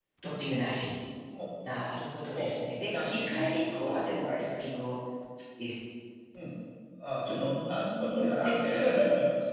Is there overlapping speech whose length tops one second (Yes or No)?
Yes